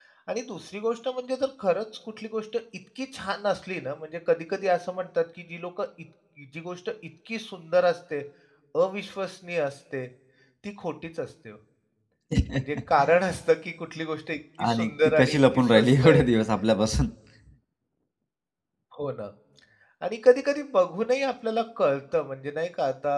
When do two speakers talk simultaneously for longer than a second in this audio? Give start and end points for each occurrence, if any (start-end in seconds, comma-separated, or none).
14.7-16.2